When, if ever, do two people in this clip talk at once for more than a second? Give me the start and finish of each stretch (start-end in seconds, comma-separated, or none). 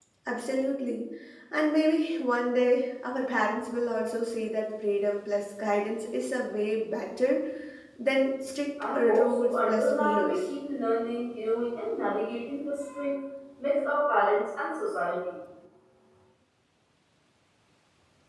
8.9-10.4